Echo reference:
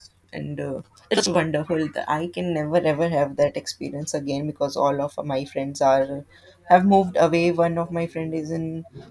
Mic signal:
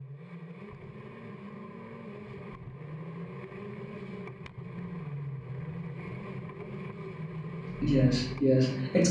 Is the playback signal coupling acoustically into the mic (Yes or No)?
No